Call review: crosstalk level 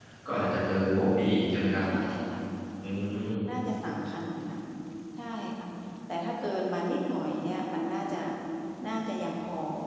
none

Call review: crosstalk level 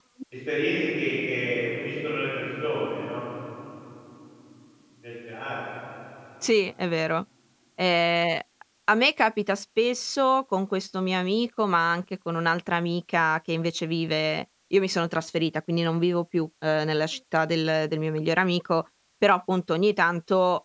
none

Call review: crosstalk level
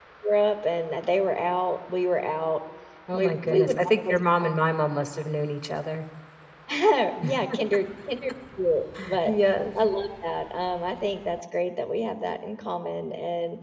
present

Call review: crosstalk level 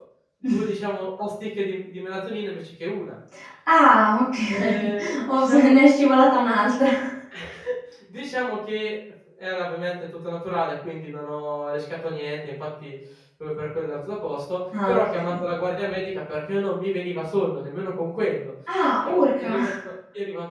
present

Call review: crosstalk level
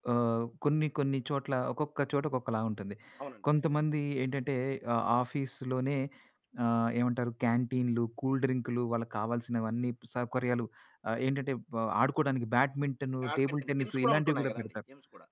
present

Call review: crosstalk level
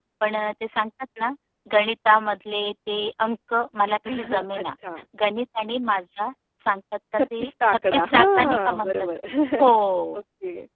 present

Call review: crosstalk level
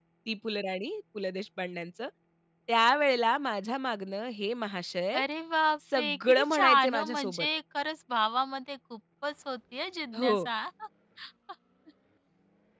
present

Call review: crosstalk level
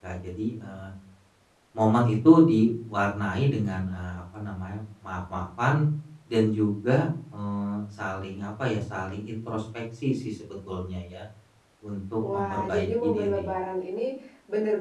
present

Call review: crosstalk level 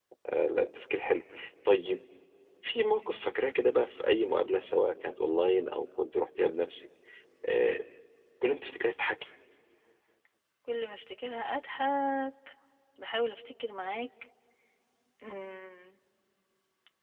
none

